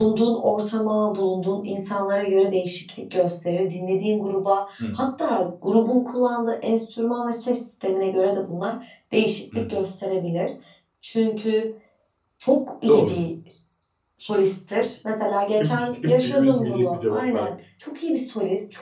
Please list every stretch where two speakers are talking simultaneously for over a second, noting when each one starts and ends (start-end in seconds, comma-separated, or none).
15.6-17.5